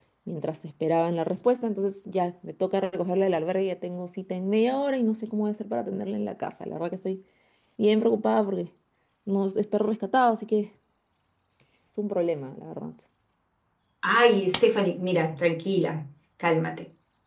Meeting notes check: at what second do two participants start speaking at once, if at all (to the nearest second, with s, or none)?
none